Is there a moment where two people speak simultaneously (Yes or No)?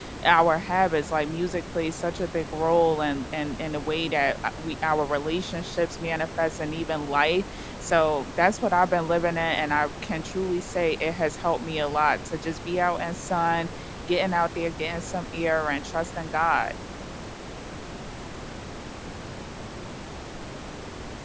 No